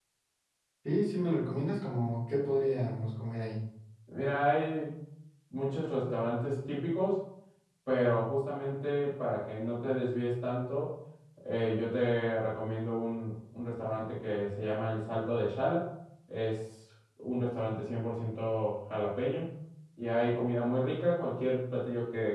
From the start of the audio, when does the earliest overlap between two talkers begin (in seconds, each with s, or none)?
none